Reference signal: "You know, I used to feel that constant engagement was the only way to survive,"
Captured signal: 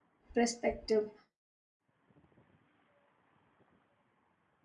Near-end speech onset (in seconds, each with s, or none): 0.3 s